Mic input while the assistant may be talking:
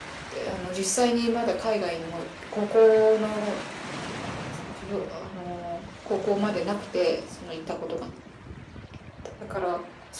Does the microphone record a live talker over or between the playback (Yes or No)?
No